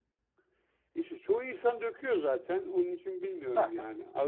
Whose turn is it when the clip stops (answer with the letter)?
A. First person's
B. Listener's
A